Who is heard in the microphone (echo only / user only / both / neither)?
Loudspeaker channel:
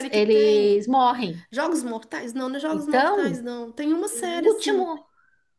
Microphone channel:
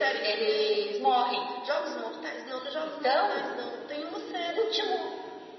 echo only